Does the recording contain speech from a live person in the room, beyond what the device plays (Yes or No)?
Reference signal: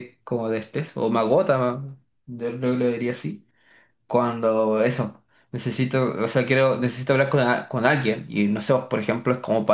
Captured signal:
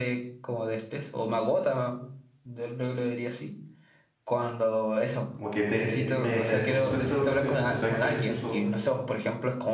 Yes